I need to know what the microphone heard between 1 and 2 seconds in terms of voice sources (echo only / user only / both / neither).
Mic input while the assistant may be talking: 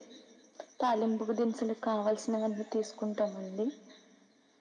echo only